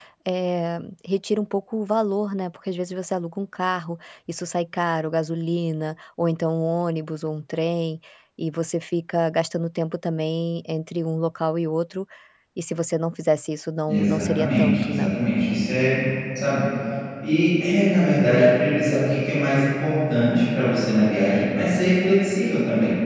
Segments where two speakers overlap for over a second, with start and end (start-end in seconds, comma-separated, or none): 13.9-15.1